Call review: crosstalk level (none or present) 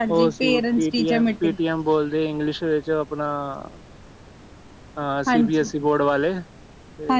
present